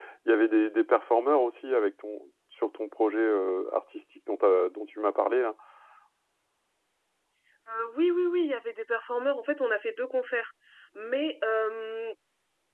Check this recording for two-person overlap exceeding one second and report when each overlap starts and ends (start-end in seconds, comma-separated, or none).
none